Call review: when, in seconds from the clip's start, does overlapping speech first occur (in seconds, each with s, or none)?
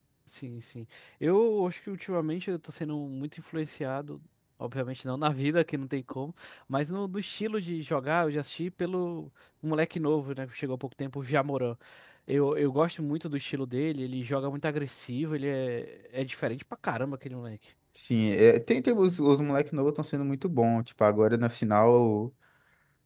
none